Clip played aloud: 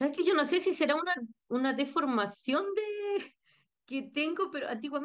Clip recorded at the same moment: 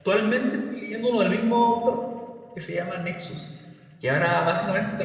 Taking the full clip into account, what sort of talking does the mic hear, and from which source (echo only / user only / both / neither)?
user only